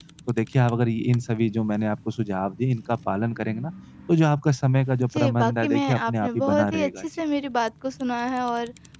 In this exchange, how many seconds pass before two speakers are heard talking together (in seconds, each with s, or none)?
5.1 s